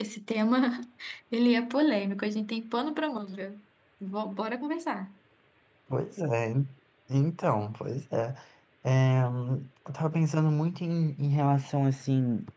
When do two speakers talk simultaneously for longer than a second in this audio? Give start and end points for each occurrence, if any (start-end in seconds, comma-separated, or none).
none